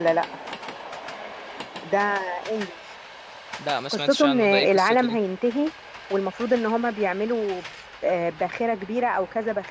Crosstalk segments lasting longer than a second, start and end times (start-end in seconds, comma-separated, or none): 3.9-5.2